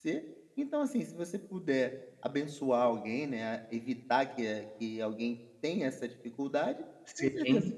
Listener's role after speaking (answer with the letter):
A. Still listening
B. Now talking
A